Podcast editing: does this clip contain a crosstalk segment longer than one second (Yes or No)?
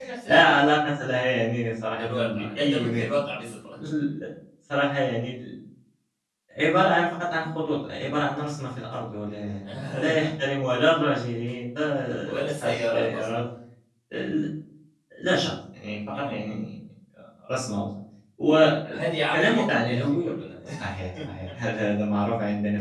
Yes